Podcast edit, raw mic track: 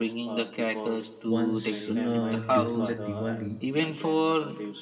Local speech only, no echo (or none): Once no, during the Diwali,